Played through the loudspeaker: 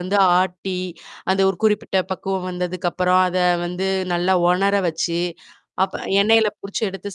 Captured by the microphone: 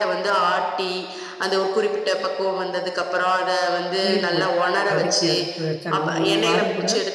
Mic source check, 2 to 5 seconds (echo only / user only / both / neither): both